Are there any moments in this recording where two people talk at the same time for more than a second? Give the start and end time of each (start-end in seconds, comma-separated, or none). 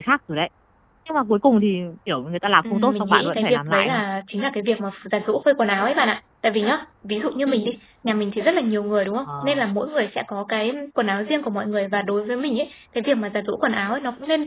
2.7-4.0